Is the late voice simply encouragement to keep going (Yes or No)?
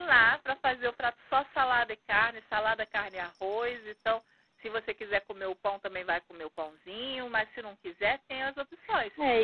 No